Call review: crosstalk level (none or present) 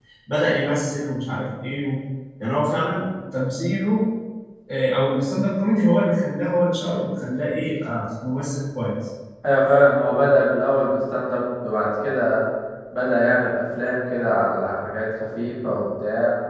none